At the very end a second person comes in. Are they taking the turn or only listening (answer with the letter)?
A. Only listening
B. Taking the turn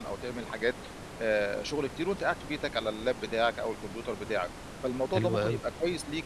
A